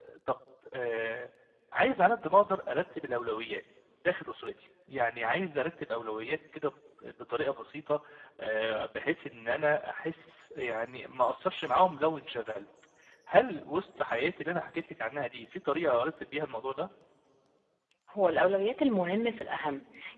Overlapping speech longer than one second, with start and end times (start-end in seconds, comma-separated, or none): none